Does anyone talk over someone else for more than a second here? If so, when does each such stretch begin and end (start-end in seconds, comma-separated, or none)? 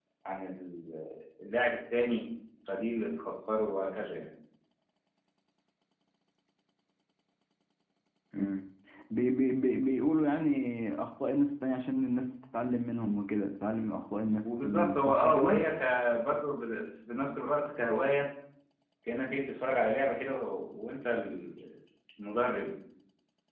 14.4-15.6